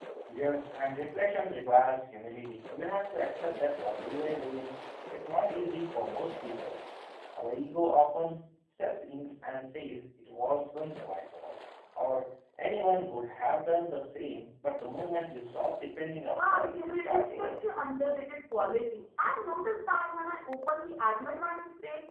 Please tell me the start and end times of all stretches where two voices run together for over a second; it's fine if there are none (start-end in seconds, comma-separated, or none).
16.3-17.6